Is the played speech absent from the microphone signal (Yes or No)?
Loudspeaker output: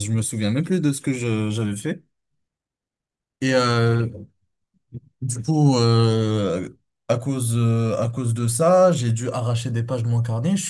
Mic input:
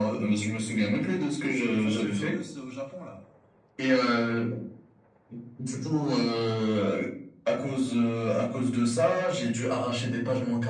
No